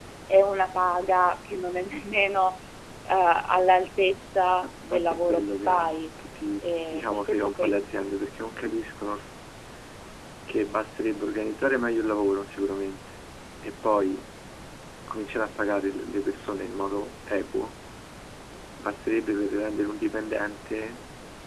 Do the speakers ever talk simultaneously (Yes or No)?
Yes